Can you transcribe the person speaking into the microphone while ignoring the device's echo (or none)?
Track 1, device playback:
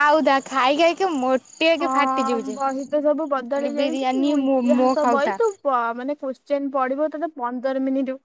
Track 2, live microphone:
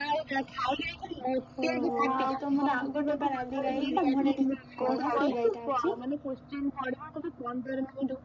ଓହୋ ଆଉ ତମର ଆଉ ଗୋଟେ ବା ନାଲି ଗାଈ ତା ମୁହଁ ଟା ଟିକେ କଳା ସେଇ ଗାଈଟା ଅଛି